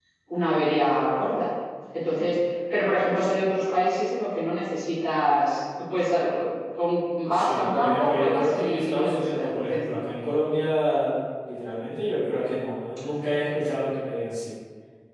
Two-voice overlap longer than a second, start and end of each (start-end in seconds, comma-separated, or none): 7.3-10.0